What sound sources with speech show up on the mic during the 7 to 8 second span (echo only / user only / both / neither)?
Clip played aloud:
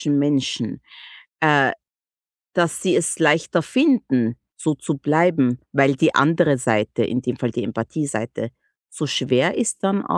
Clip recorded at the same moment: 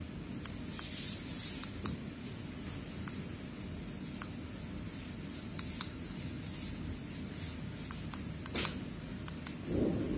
neither